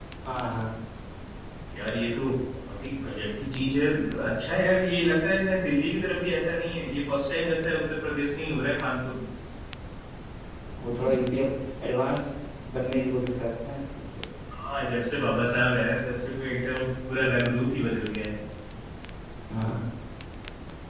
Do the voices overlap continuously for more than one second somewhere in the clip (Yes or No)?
No